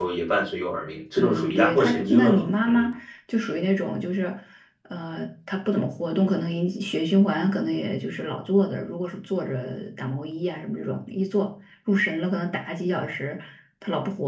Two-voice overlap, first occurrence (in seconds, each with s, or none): 1.2 s